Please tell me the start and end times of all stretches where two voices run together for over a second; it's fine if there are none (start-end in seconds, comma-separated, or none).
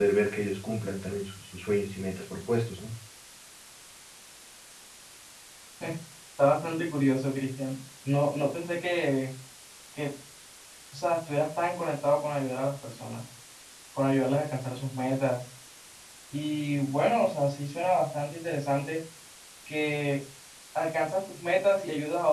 none